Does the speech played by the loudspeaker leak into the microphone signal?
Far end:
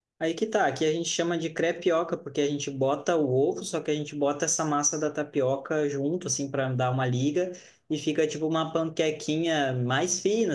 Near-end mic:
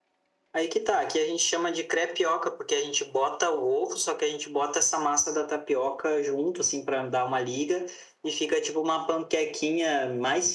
Yes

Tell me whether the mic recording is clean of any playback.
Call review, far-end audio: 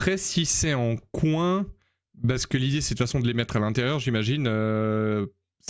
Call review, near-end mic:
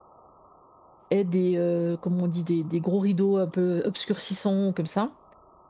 Yes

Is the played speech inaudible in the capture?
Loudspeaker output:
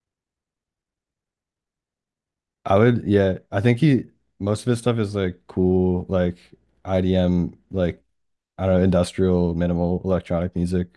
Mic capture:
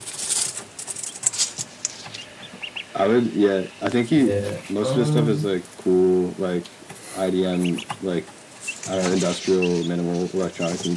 No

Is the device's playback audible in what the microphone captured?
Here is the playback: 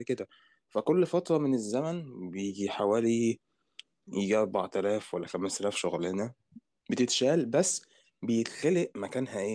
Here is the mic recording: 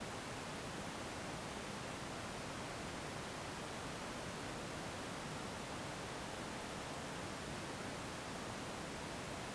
No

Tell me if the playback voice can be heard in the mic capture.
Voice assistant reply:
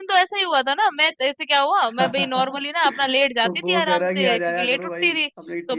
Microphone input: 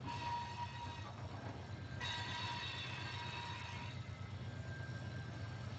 No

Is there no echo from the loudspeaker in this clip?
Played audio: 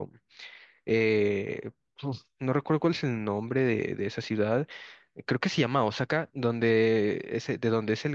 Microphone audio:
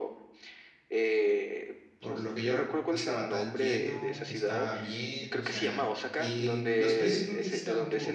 No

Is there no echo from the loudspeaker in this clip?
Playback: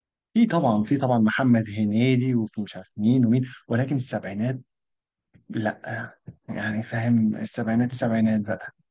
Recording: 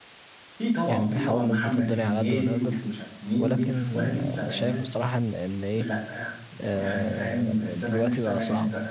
No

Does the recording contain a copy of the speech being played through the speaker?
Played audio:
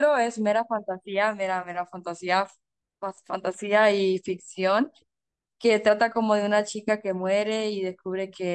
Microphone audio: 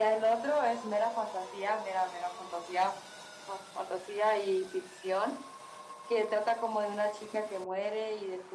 Yes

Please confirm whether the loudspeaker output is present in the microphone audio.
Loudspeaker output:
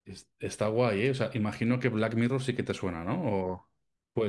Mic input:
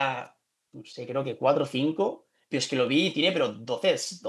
No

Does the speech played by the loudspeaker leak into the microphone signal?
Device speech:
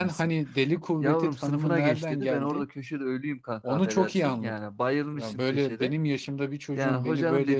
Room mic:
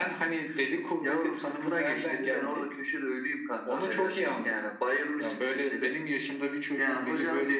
Yes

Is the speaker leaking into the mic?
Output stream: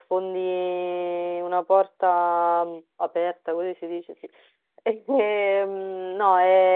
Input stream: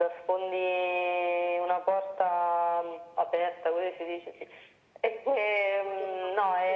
Yes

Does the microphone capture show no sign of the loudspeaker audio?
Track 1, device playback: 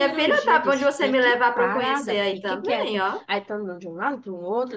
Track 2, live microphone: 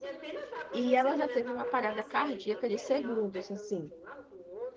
No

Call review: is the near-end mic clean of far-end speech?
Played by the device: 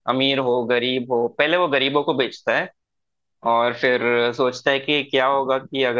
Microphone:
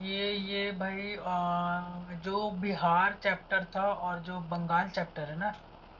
Yes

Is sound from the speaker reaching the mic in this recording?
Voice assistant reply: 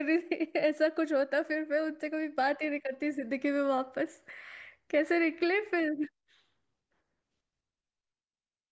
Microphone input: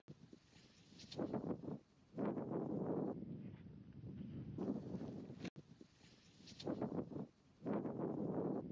No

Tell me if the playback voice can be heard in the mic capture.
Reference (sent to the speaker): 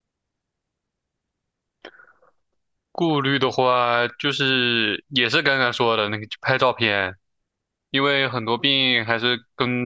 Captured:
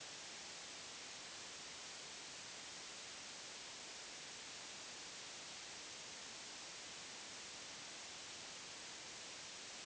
No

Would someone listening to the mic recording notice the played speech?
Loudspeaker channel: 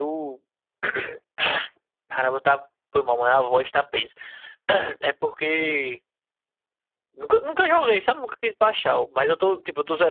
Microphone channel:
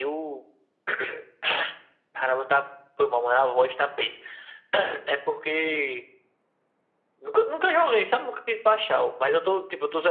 Yes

